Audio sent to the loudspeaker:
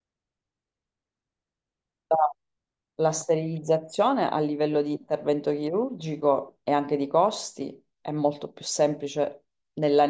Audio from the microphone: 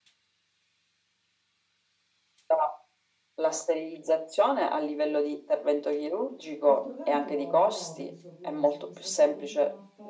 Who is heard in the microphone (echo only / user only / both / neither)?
both